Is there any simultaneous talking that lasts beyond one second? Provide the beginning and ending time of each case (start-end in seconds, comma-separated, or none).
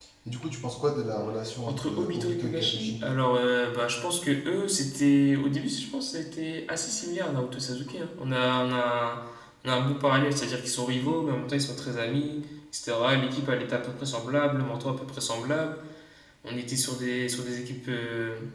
1.7-3.0